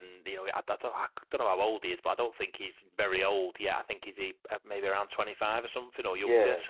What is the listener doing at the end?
listening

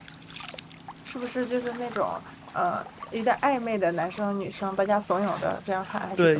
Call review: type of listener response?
taking over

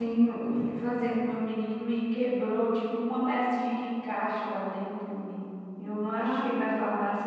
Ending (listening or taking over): listening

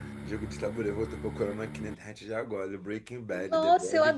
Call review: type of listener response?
taking over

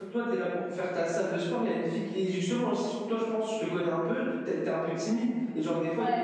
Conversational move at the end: listening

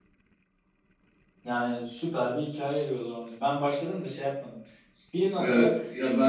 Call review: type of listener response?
taking over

